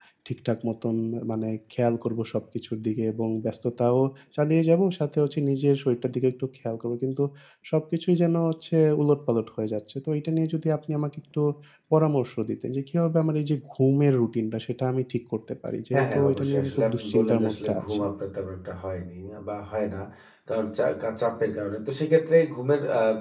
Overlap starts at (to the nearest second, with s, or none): 16 s